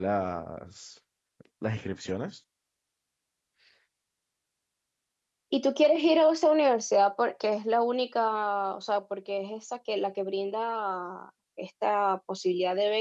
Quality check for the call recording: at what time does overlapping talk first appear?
none

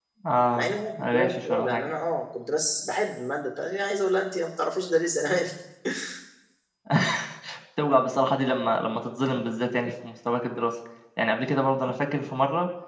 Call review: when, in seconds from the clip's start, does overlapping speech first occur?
1 s

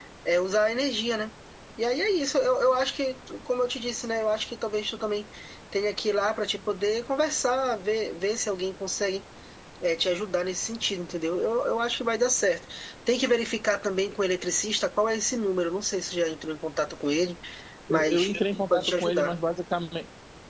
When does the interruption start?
18 s

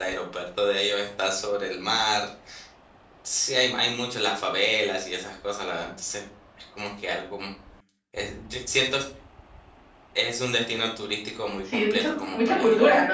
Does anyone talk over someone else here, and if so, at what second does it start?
12 s

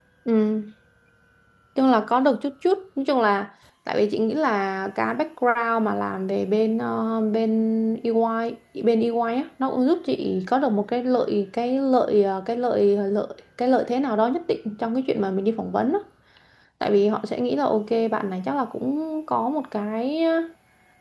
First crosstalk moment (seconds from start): none

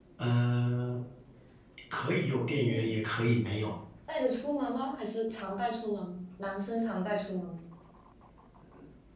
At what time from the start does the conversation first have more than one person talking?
2 s

